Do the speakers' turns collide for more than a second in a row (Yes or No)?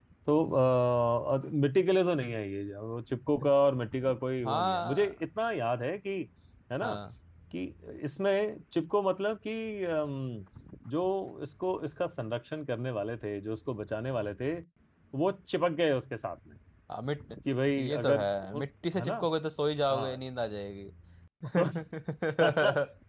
Yes